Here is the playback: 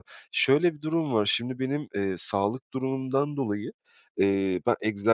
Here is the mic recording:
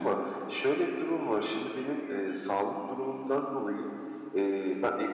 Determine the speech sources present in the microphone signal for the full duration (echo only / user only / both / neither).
echo only